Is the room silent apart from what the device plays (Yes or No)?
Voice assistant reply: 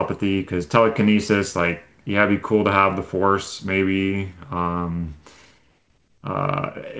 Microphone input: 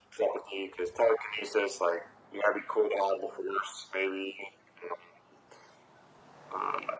Yes